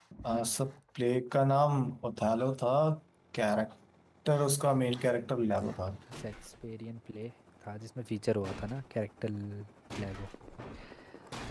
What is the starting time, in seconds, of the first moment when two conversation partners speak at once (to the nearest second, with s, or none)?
none